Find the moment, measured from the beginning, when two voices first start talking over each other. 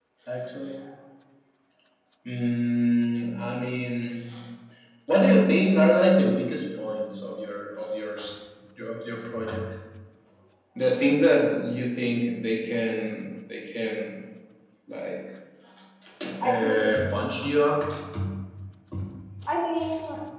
16 s

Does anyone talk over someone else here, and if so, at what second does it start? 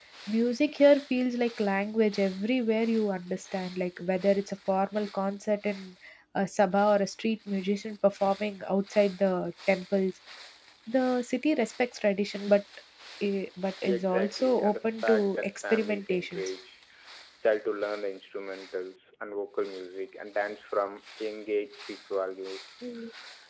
14 s

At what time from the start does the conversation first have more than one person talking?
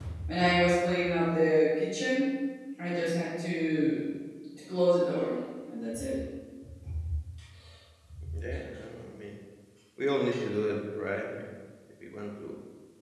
none

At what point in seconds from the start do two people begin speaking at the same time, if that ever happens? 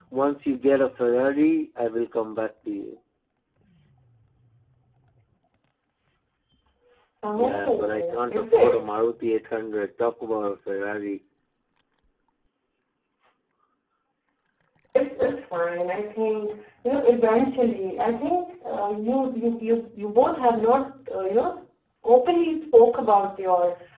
7 s

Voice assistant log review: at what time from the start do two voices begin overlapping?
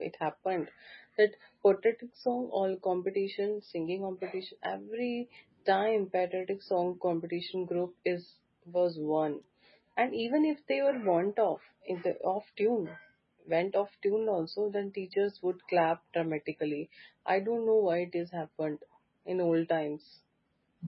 none

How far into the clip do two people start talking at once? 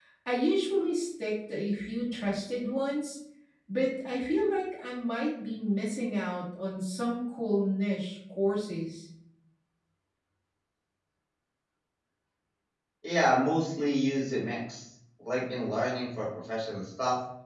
none

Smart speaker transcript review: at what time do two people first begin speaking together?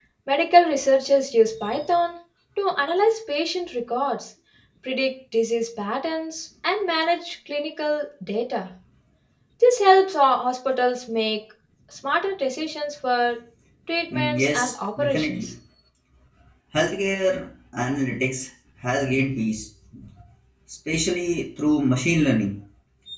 14 s

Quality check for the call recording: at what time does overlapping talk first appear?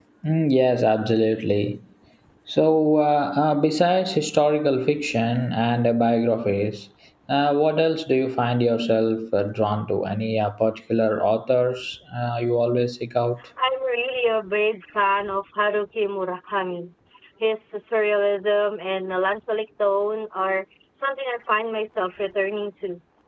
none

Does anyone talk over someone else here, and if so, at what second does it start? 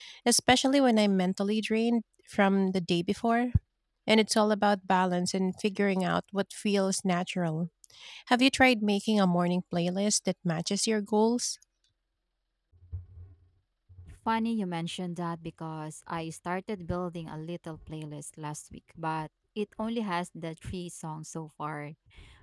none

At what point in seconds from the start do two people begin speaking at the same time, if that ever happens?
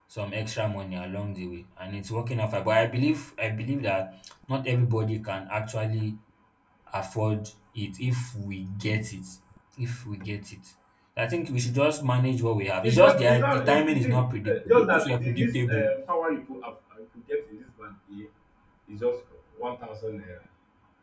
13 s

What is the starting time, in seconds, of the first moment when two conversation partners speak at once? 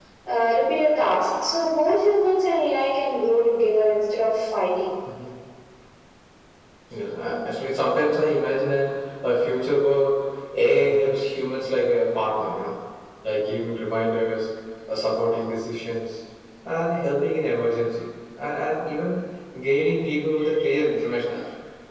none

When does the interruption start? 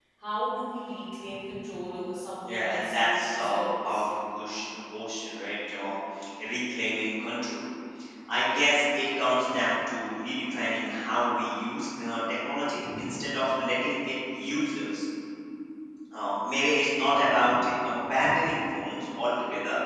2 s

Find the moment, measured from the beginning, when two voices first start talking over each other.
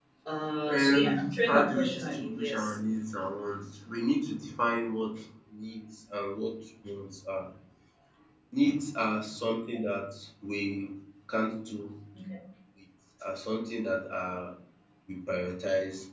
1 s

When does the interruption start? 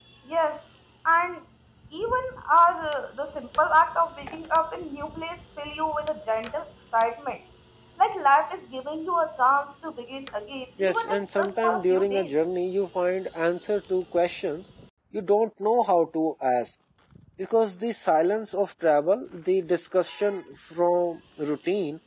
11 s

